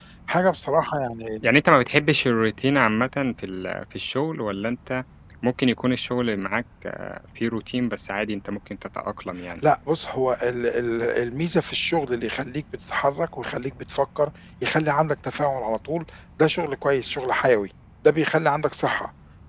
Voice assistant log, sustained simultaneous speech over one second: none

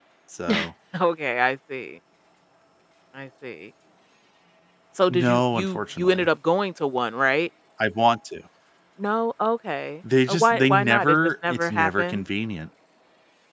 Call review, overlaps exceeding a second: present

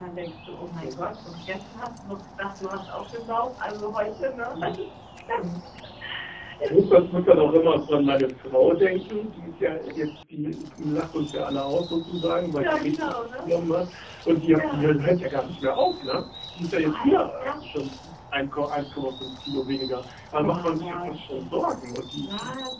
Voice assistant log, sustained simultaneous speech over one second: present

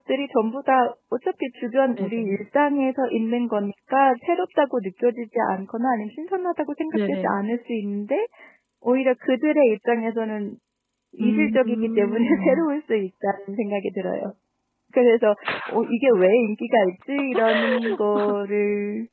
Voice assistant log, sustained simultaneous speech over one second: present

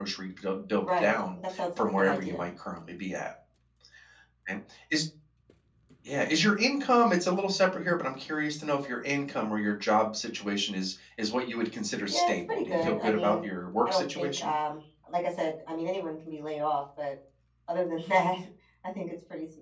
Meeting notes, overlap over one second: present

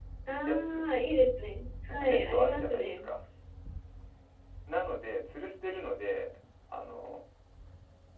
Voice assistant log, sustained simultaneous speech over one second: present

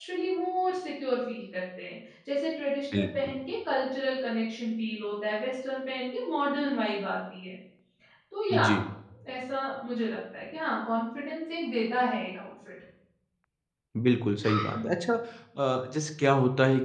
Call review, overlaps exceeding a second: none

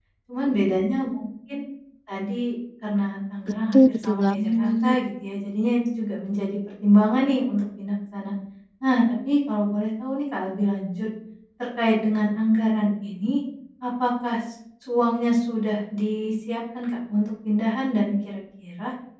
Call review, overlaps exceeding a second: present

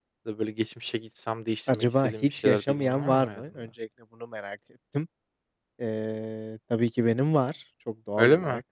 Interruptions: present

